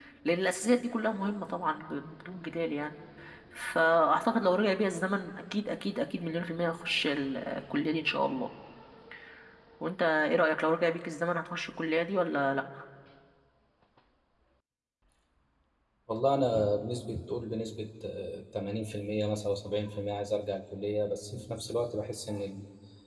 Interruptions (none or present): none